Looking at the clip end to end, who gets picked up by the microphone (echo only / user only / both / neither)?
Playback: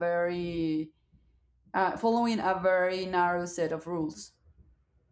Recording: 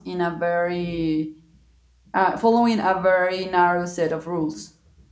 echo only